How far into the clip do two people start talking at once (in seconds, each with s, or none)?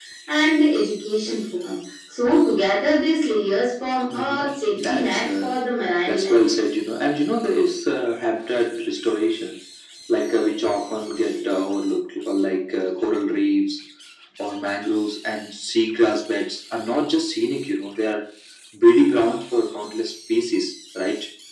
4.1 s